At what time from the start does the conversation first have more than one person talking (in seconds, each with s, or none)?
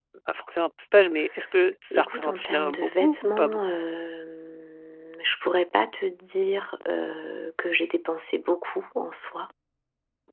1.9 s